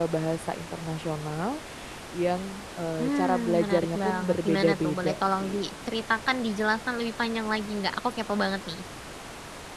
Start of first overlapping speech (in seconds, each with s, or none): 3.0 s